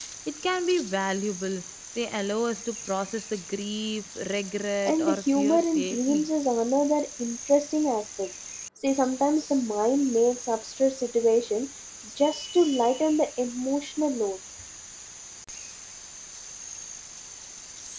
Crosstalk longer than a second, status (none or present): present